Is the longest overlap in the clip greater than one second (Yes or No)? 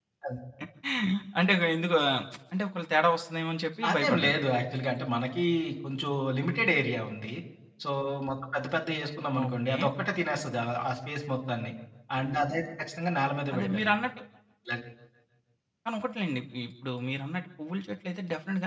No